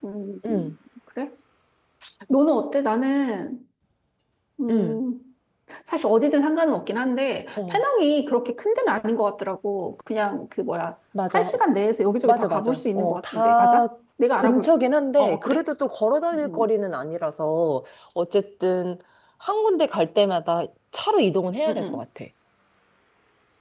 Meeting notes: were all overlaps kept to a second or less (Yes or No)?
No